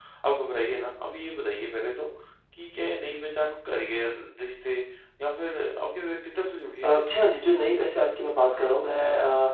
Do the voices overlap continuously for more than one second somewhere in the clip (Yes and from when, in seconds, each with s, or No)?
No